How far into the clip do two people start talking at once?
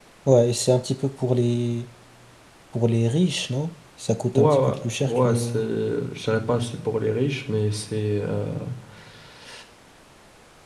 4.3 s

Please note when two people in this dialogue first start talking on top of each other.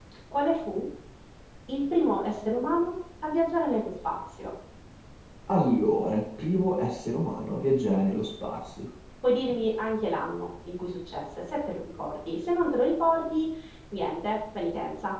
none

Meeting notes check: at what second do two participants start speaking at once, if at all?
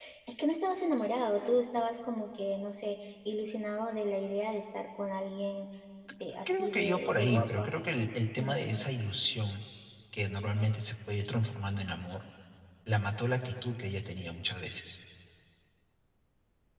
6.5 s

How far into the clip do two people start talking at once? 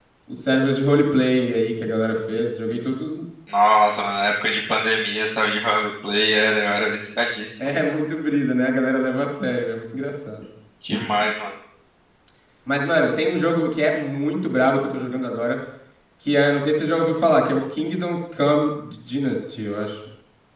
none

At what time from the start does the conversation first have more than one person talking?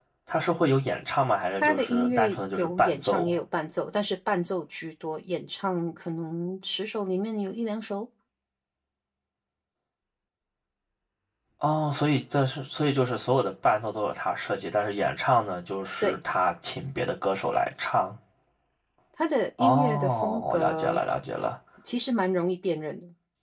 1.6 s

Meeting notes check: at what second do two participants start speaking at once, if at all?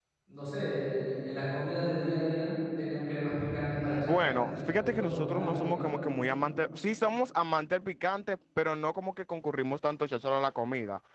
3.8 s

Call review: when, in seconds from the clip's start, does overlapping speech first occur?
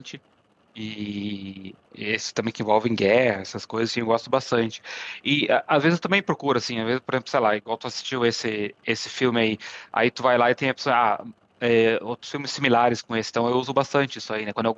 none

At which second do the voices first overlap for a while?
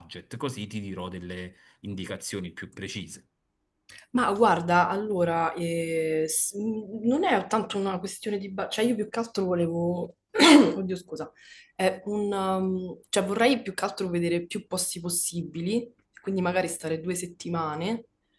none

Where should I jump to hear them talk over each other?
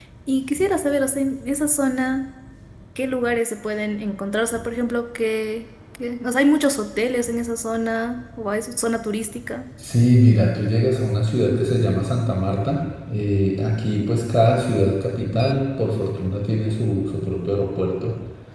none

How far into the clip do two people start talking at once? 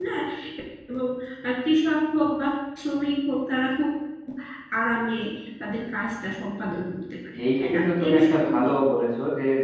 7.4 s

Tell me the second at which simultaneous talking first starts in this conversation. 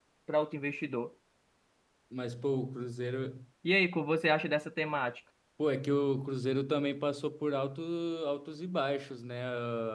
none

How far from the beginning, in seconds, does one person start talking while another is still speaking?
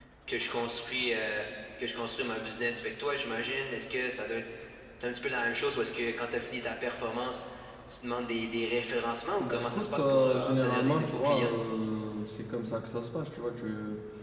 9.4 s

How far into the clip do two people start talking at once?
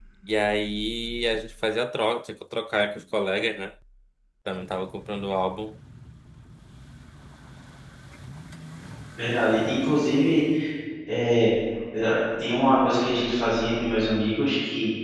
none

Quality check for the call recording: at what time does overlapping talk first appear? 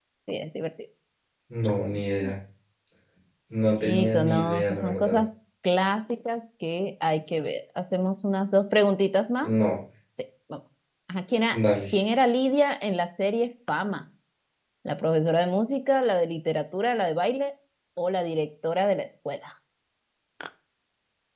3.7 s

